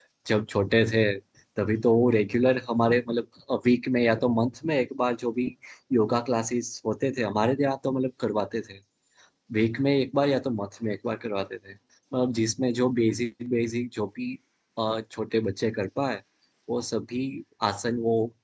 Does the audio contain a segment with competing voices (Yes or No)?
No